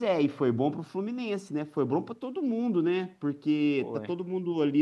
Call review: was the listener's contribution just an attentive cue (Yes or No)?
Yes